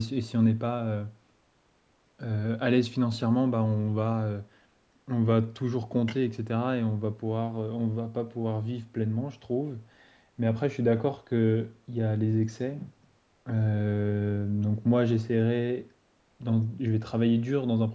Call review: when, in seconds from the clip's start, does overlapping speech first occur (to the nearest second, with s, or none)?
none